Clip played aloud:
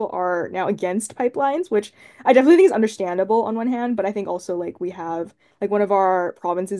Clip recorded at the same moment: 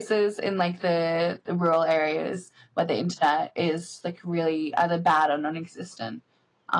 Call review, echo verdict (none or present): none